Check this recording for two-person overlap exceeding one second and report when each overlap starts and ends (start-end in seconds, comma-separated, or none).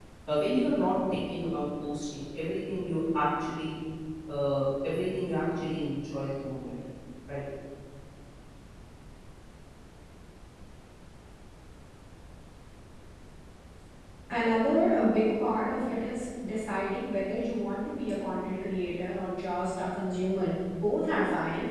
none